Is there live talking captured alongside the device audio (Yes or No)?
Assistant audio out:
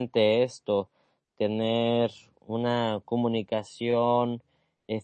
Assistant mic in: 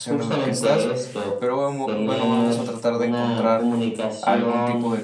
Yes